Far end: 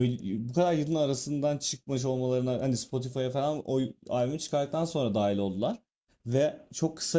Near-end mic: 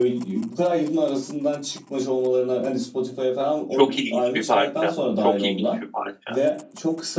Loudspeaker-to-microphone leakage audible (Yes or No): Yes